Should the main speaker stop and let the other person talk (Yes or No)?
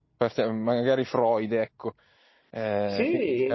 Yes